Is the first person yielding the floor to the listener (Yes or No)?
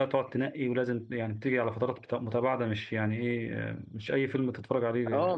Yes